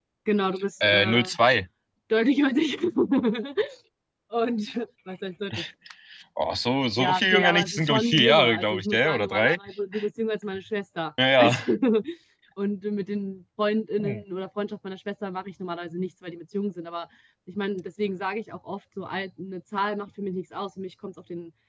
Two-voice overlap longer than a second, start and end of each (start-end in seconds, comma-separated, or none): 7.0-9.6